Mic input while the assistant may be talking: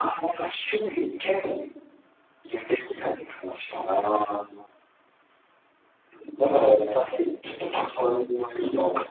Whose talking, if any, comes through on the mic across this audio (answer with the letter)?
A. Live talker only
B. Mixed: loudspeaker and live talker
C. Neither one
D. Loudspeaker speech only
D